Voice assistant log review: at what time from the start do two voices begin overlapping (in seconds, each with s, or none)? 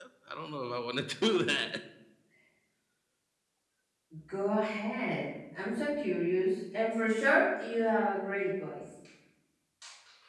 none